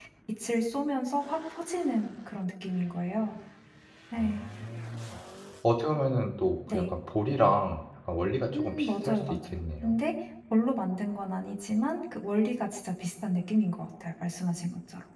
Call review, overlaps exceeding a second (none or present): present